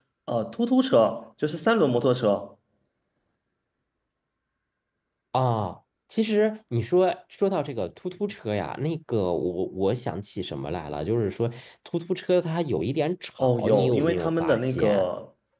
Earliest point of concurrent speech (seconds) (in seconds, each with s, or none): 13.4 s